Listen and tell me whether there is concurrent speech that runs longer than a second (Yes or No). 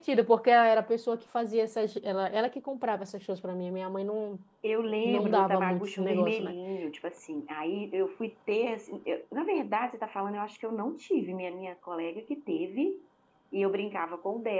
Yes